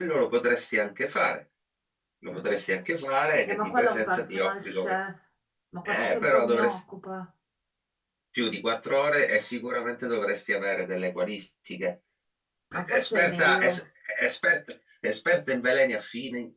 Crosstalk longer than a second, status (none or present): present